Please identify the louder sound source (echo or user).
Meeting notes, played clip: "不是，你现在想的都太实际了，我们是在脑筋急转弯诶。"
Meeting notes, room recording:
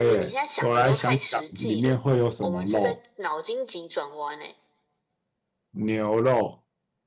user